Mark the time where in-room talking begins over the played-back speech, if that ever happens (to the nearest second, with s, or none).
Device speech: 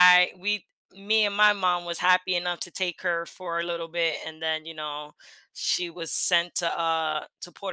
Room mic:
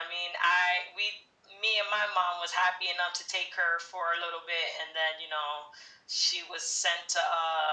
none